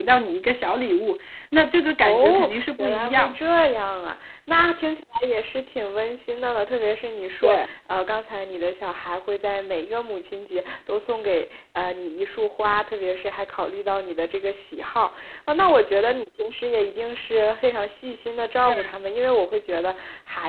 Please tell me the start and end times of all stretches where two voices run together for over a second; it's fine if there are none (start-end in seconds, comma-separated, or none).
2.0-3.4